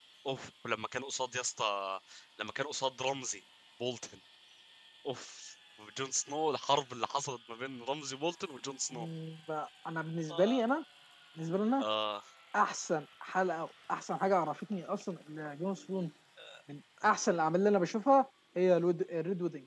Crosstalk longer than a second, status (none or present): none